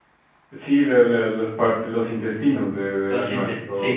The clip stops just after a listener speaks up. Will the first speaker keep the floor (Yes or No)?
No